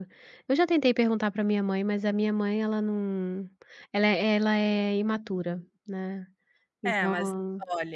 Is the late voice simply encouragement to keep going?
No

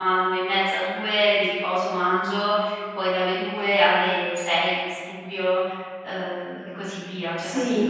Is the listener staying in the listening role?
No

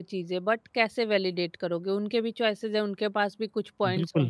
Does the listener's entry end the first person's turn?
Yes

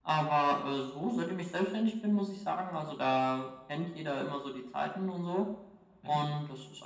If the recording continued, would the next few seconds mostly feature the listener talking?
No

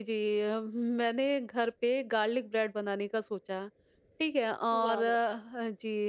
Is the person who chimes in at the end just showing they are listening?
Yes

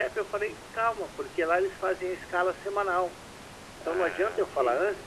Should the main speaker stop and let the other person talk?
No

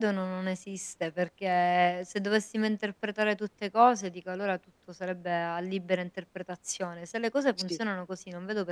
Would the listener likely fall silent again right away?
Yes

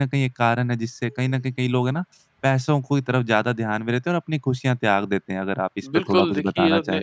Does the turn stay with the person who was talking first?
No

